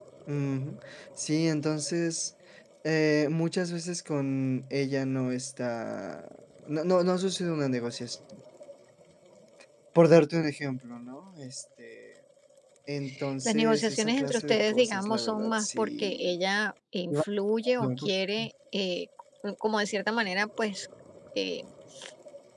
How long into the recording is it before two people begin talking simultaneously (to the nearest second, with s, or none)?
13 s